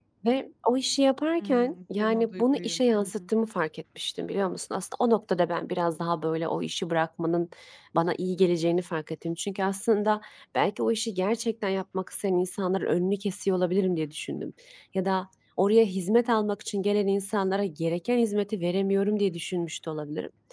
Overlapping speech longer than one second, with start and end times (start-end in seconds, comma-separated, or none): 1.4-3.2